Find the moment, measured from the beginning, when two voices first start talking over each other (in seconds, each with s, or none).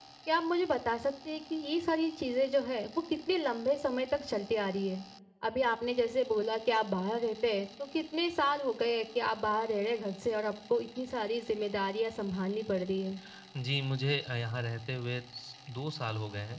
none